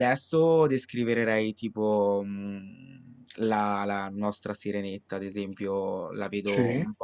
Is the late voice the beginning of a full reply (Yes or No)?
No